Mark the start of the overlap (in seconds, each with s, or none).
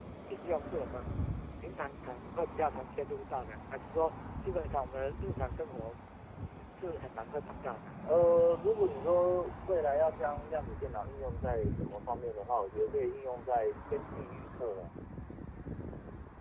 none